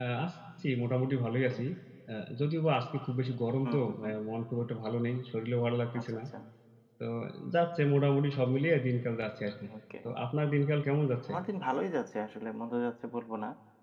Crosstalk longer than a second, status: none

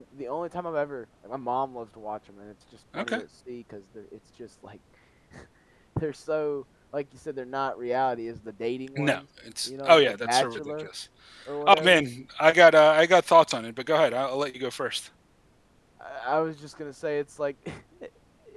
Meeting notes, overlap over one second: present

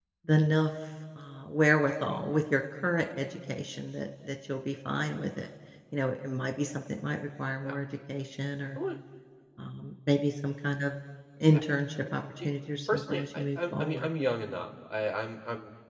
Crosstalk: present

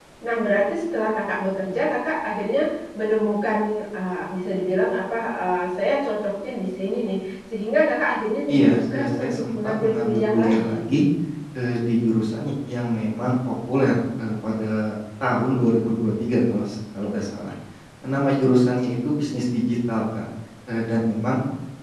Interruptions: present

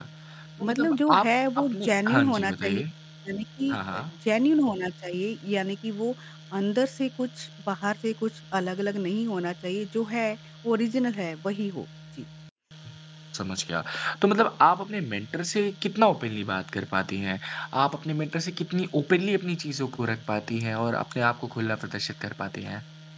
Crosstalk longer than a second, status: present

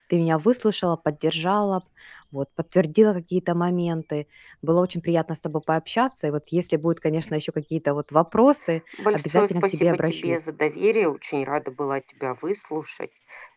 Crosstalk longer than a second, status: present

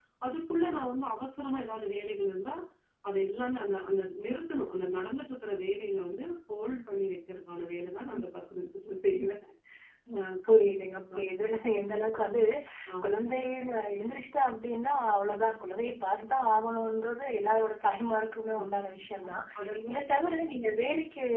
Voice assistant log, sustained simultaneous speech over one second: none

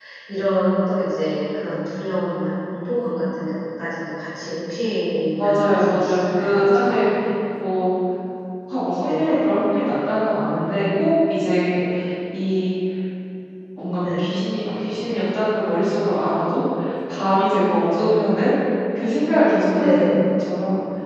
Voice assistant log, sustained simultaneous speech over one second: present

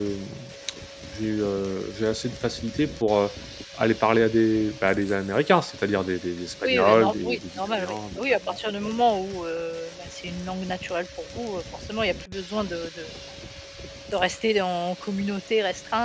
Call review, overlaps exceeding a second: present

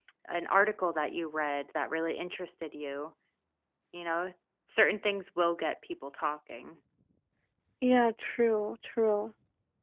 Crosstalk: none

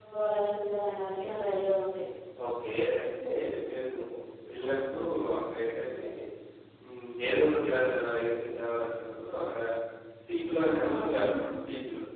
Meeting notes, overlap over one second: none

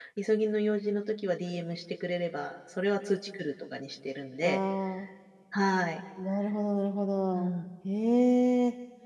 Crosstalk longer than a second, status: none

